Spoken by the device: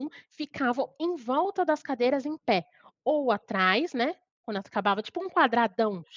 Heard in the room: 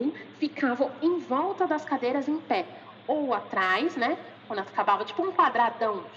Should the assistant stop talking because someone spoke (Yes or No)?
No